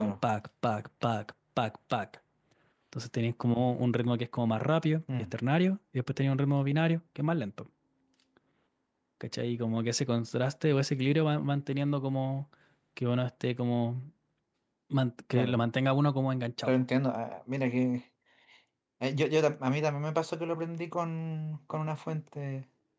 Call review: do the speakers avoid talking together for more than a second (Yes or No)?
Yes